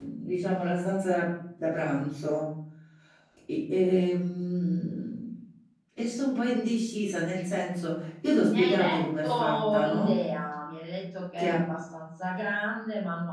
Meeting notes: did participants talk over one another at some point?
Yes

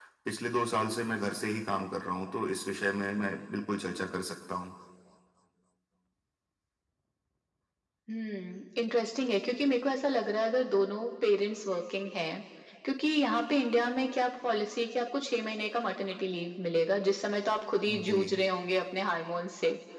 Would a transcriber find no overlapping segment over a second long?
Yes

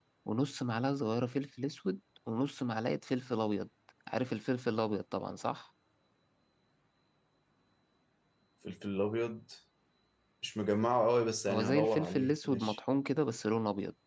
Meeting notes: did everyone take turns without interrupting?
No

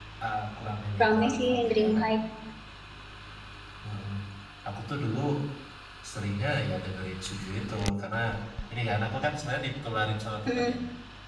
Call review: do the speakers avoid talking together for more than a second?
No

